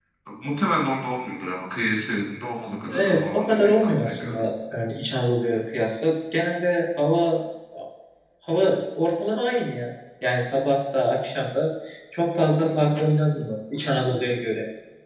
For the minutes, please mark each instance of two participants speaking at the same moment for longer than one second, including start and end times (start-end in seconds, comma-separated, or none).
2.9-4.5